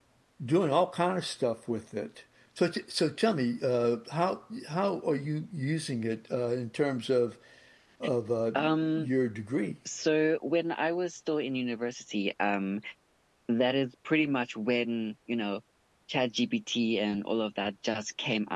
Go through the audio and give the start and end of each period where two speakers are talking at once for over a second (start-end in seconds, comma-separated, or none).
none